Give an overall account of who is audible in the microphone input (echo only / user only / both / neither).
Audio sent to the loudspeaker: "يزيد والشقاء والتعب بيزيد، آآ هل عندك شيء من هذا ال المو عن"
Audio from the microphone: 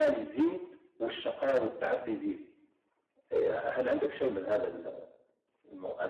echo only